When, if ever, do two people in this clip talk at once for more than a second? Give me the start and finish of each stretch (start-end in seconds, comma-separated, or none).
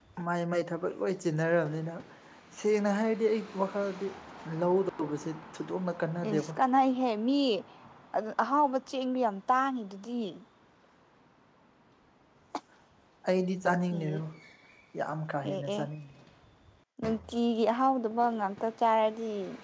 none